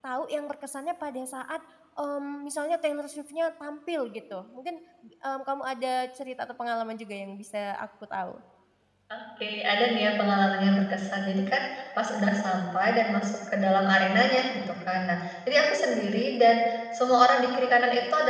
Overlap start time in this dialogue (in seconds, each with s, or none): none